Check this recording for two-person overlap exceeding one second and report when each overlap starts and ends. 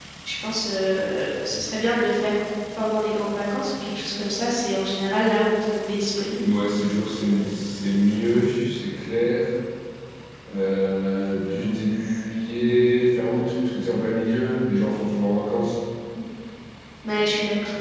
none

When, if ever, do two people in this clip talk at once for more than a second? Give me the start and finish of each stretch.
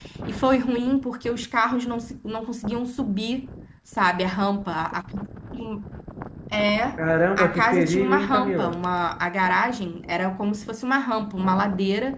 7.4-8.8

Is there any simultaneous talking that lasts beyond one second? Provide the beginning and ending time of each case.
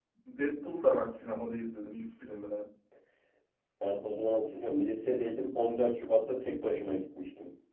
none

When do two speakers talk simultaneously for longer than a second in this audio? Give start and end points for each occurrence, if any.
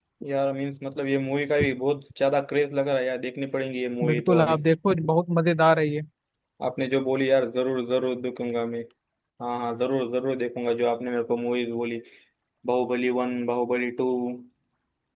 none

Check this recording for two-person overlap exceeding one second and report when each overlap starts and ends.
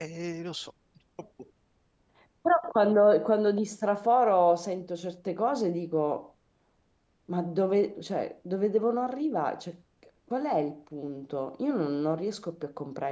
none

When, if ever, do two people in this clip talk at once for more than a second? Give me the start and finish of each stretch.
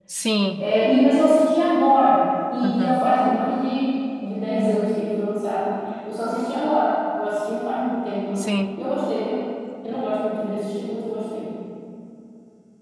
none

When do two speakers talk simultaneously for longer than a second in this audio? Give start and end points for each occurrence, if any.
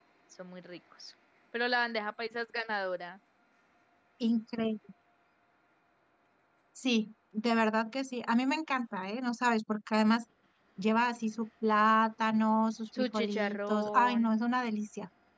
13.0-14.3

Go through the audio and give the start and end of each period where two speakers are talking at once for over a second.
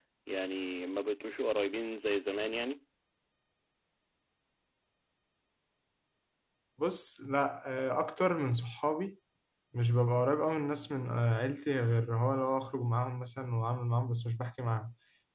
none

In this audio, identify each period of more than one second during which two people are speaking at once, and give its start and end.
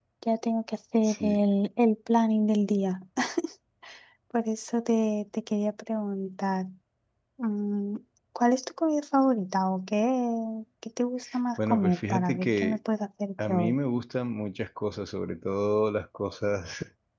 11.6-12.8

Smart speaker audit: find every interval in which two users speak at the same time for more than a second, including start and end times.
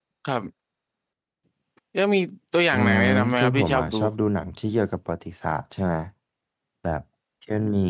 2.7-4.0

